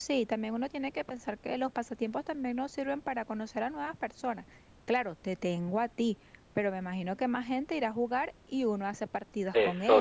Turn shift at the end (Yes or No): Yes